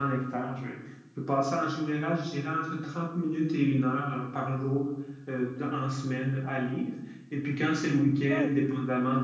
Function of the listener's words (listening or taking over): listening